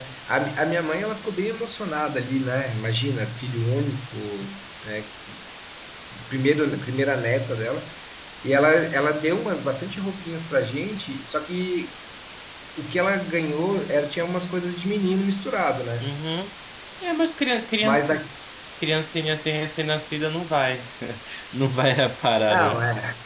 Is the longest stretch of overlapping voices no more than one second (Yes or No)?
Yes